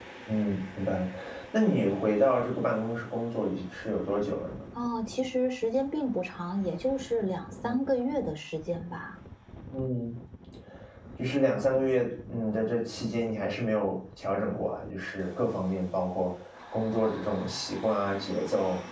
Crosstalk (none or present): none